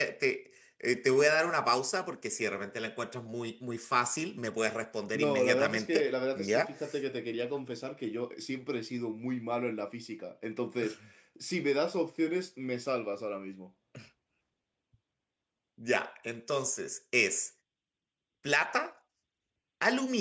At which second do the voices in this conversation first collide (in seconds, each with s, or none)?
5.1 s